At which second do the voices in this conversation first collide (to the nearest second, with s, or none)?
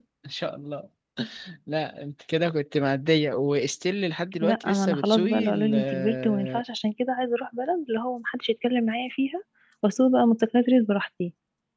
4 s